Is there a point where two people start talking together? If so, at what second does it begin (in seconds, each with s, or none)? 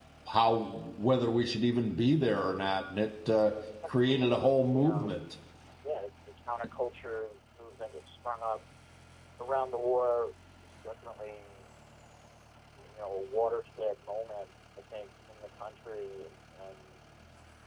4.0 s